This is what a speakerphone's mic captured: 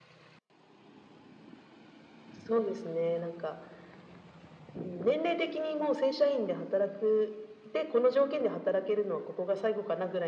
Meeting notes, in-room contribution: none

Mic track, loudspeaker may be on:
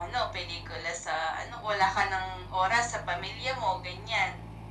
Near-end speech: none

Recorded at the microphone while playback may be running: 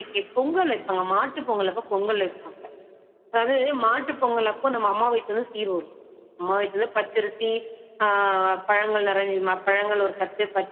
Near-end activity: none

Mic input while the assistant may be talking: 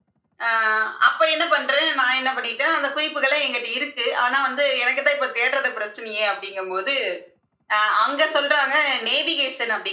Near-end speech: none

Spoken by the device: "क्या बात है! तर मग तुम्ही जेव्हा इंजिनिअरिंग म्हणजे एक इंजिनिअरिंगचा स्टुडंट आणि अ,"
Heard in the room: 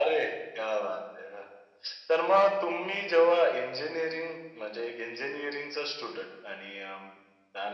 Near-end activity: none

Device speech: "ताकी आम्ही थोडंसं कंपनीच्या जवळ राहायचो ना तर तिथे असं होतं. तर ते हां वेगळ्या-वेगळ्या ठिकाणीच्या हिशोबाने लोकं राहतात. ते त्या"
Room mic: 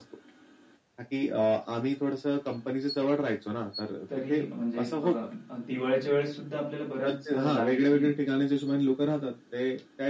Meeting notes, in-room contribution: present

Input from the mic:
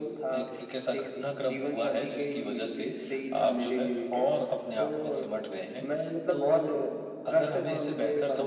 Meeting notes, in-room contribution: none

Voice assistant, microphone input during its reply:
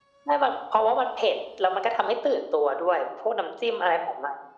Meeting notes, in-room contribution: none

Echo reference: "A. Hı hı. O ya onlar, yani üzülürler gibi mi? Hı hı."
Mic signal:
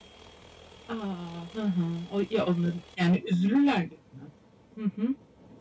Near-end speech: none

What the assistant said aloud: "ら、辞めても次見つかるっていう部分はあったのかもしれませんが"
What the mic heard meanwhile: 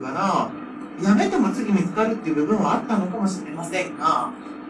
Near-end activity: none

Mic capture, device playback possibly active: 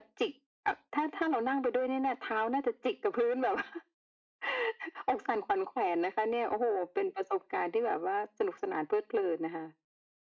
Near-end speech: none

